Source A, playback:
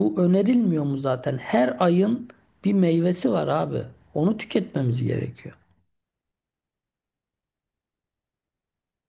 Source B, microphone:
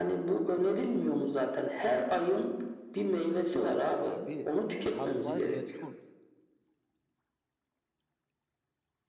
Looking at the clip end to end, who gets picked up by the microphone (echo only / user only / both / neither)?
both